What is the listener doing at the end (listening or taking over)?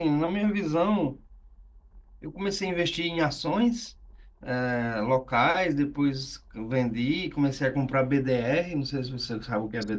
taking over